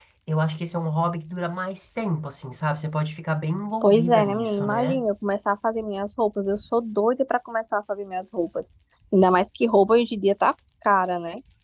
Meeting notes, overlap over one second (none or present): present